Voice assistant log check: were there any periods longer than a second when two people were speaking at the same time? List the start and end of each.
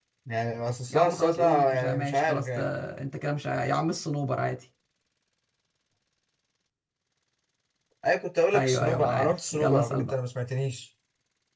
0.9-2.6, 8.5-10.2

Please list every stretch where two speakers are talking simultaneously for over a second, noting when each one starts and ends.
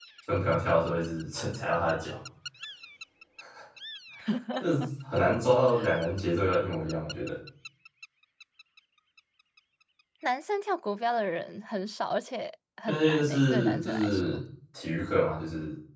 12.9-14.3

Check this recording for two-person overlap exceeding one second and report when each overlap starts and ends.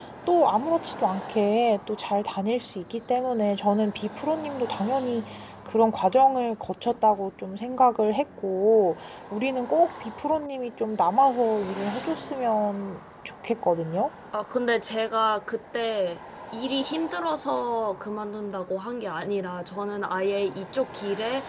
none

